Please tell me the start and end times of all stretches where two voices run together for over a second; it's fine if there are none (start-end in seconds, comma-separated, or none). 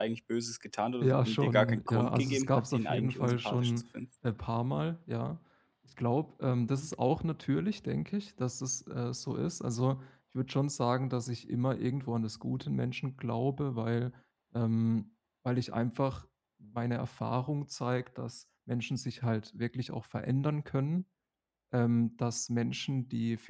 1.0-3.8